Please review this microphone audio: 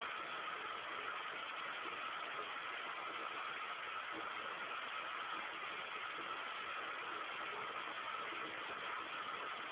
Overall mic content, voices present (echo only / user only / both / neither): neither